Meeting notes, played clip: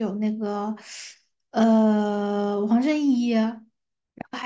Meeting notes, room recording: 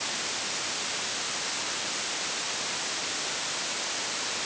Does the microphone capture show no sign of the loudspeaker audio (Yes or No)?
Yes